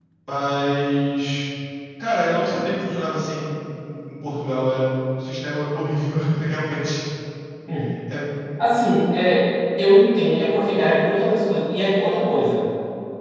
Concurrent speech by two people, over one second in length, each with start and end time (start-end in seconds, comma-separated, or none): none